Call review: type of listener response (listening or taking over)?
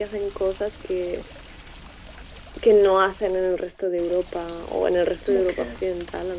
listening